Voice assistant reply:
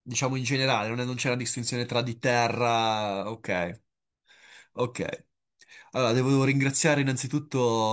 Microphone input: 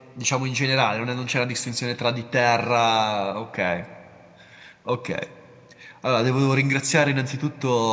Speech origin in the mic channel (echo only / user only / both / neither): echo only